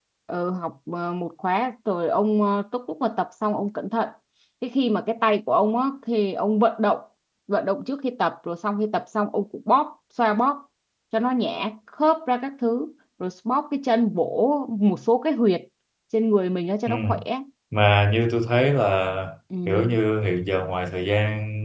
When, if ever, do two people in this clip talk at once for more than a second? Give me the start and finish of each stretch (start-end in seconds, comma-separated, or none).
none